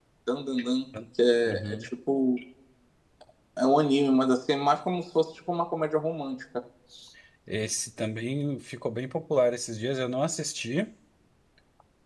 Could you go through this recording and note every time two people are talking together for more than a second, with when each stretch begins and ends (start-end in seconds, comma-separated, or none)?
none